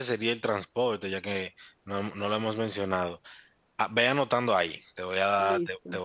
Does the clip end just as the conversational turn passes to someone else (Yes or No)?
No